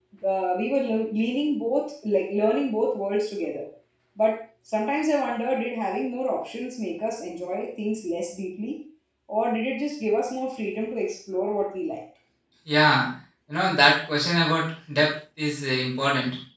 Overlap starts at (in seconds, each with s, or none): none